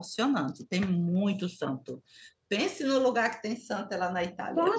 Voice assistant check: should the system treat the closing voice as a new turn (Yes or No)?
Yes